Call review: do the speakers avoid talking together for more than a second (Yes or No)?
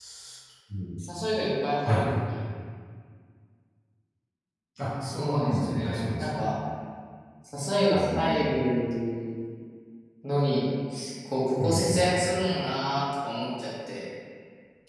No